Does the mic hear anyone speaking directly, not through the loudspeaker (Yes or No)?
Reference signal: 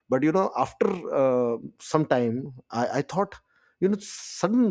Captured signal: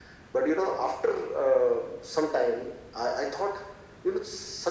No